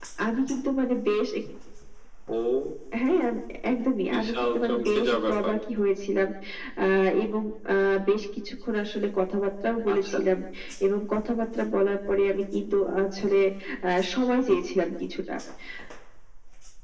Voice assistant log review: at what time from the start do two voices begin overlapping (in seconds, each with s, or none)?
4.1 s